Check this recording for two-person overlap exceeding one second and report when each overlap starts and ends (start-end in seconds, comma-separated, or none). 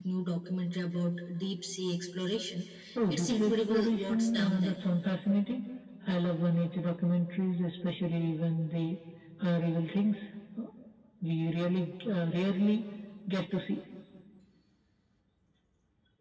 3.1-4.8